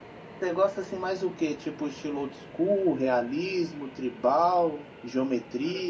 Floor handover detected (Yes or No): No